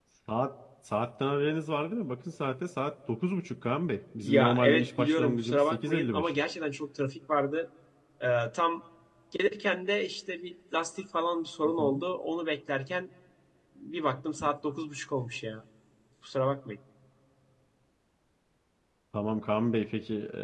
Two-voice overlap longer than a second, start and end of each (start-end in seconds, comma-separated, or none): 4.2-6.3